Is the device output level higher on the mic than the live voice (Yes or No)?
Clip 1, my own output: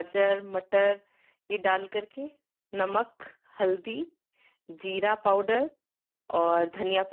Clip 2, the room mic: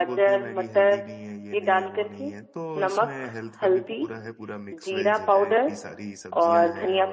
Yes